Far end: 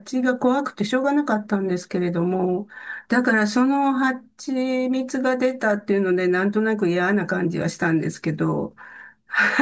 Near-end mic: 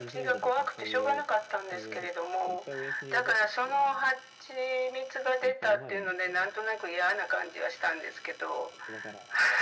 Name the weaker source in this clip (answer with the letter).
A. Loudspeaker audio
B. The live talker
B